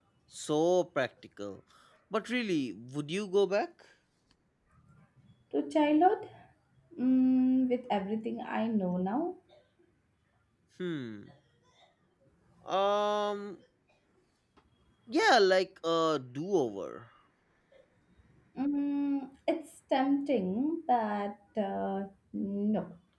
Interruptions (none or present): none